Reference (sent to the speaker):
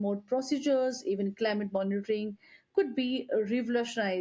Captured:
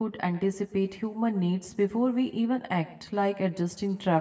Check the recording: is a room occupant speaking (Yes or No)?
Yes